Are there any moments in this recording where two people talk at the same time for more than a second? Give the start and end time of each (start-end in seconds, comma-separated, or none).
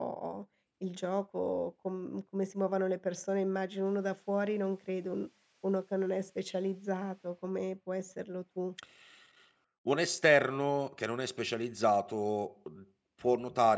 none